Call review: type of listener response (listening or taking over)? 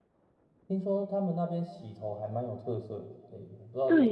taking over